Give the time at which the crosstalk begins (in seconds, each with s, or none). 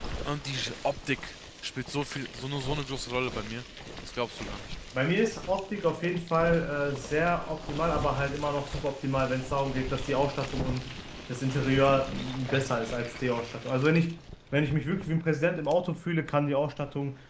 none